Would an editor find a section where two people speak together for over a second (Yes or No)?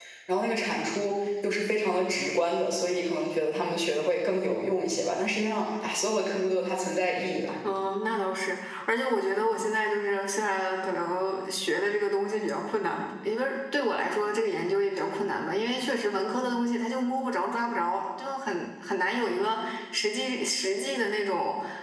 No